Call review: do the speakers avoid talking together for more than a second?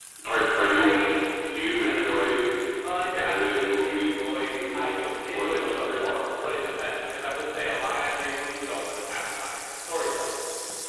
No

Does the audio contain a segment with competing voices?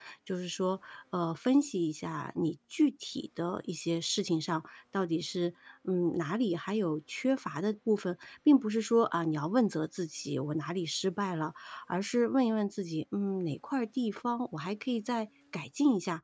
No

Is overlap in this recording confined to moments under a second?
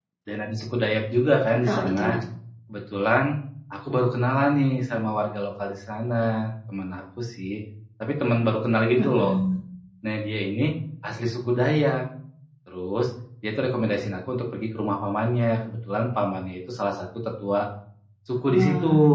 Yes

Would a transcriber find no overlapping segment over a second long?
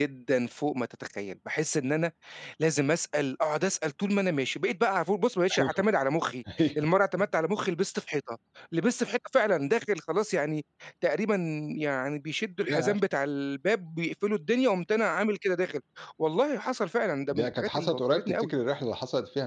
No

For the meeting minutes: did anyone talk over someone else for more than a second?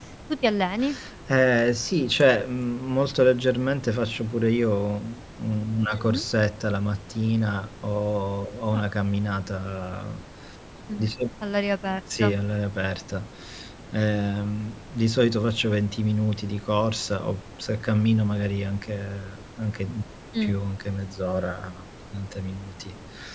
No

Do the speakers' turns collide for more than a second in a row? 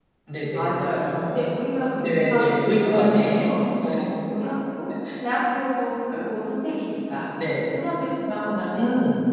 Yes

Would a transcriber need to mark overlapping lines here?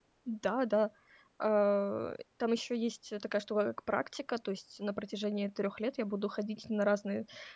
No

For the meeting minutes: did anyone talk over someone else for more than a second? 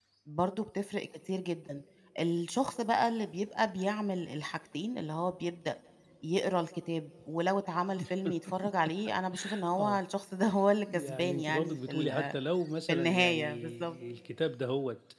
Yes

